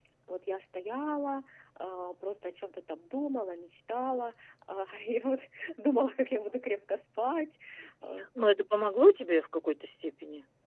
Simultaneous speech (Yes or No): No